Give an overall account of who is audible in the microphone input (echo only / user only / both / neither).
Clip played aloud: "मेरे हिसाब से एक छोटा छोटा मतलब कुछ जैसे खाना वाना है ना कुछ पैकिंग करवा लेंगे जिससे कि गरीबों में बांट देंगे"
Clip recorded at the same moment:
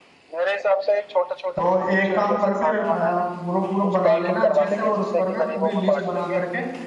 both